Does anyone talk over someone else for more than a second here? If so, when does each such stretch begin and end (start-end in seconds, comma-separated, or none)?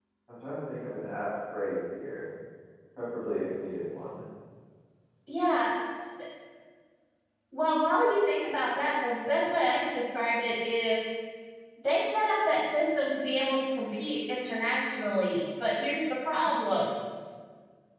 none